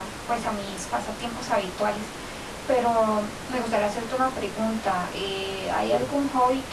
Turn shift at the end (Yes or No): No